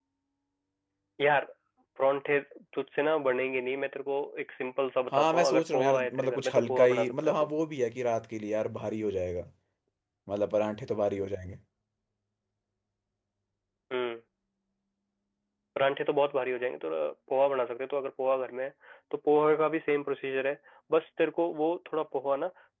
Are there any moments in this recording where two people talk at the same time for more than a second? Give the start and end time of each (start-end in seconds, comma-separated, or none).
5.1-7.3